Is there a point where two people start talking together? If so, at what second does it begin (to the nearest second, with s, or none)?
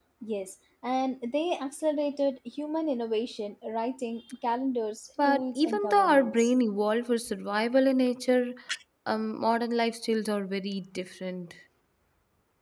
5 s